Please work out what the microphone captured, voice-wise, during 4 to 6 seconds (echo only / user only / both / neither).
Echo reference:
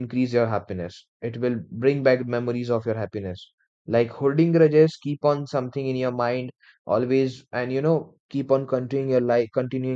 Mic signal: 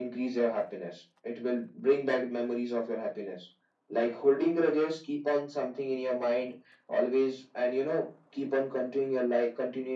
echo only